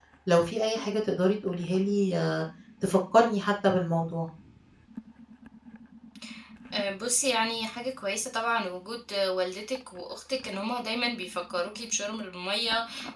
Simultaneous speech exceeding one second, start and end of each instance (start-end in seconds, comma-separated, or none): none